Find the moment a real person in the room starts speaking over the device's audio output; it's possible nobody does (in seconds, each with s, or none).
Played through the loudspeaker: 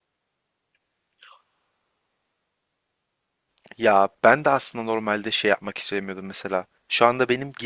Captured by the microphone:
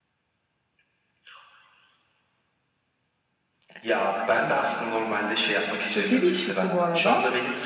5.9 s